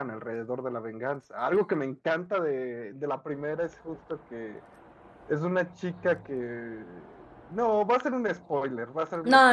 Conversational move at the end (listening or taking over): taking over